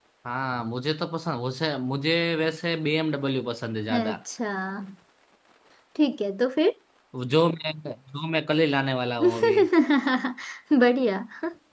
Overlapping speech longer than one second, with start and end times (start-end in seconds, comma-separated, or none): none